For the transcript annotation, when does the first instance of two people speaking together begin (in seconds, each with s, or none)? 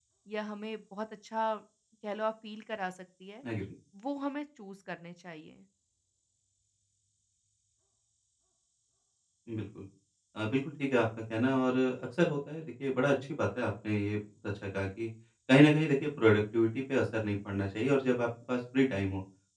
none